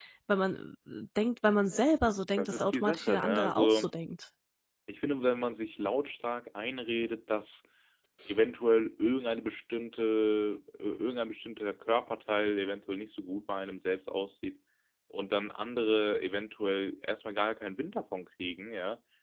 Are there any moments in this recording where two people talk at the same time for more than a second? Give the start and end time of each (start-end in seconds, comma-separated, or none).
2.4-3.9